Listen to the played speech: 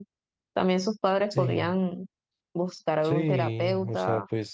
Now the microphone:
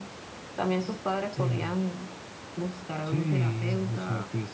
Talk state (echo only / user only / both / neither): echo only